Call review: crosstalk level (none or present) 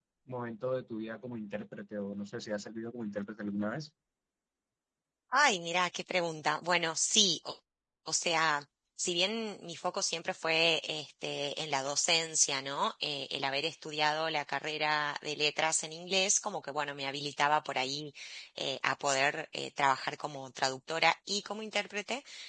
none